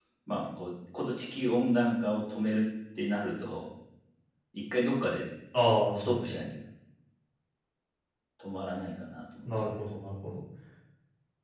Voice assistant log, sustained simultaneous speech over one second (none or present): none